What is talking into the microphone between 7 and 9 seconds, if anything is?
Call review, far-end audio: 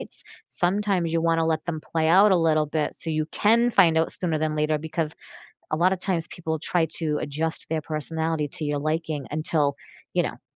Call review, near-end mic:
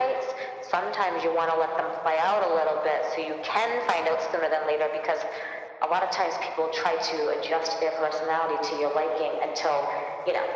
echo only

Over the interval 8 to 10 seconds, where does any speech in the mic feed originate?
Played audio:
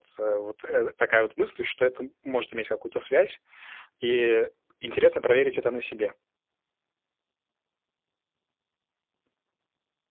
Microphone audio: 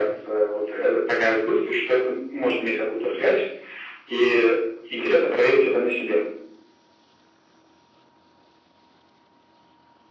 neither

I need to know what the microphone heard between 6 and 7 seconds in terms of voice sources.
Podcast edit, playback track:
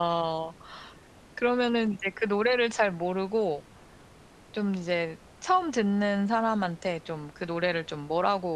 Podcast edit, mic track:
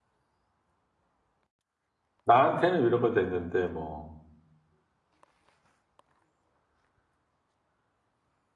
neither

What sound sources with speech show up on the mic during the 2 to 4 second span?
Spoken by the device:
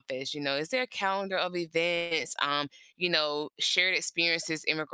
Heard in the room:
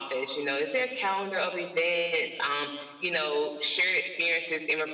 echo only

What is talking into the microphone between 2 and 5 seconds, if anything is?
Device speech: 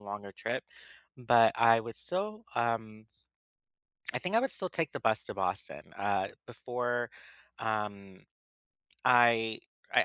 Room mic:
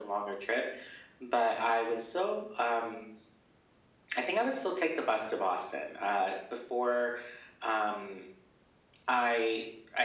echo only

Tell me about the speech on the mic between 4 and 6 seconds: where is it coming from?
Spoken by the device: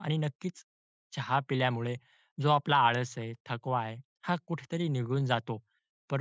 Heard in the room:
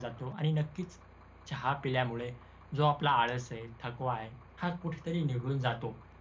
echo only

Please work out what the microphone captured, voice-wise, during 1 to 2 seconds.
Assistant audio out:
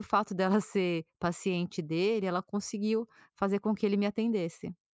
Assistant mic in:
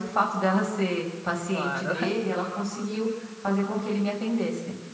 both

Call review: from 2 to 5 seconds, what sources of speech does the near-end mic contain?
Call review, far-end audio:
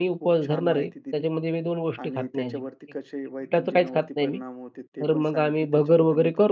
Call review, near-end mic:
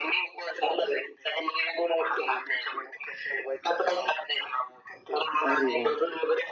echo only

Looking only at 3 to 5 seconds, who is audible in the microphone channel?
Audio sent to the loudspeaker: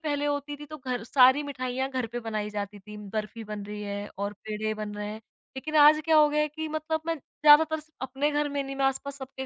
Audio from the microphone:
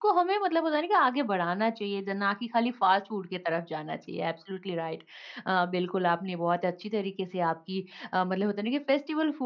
user only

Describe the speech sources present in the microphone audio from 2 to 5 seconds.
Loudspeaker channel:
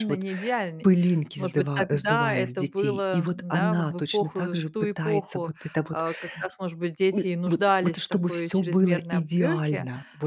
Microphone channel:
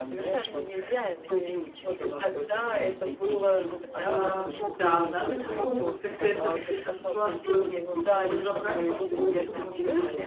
both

